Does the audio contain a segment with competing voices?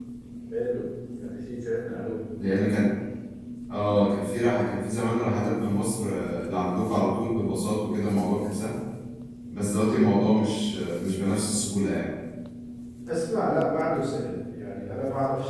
No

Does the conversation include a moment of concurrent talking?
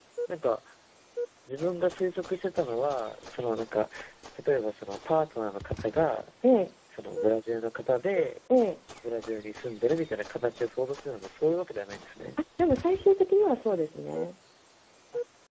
No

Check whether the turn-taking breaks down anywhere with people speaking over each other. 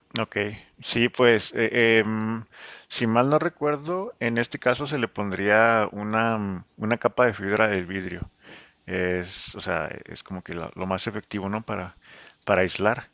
No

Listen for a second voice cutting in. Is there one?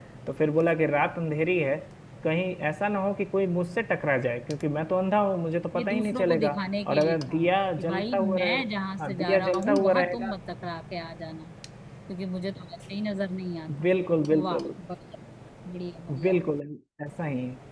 Yes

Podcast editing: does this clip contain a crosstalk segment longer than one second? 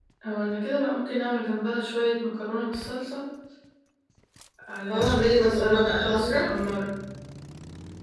Yes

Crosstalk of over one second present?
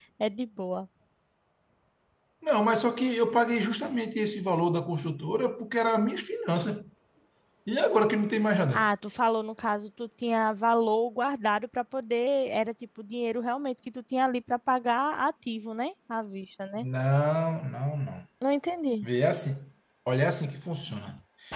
No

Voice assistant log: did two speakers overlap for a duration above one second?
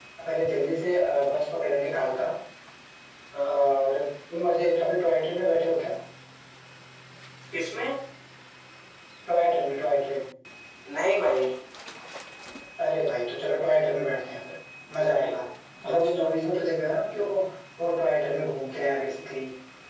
No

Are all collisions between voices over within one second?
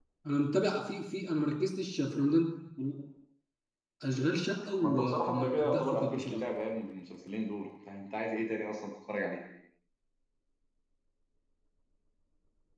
No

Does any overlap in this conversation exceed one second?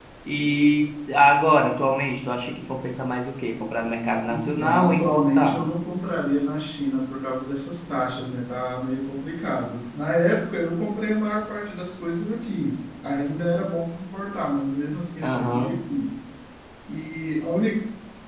Yes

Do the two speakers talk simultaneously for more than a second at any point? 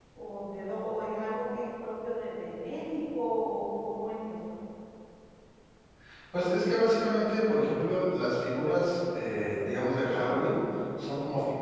No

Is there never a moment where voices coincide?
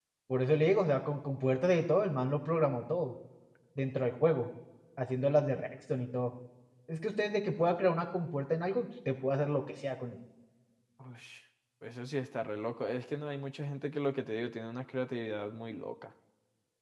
Yes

